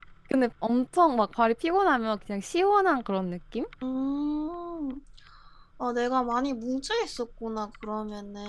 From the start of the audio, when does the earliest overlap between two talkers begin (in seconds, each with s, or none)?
none